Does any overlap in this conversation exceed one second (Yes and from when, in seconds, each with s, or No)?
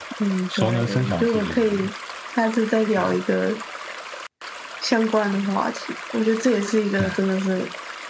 Yes, from 0.6 s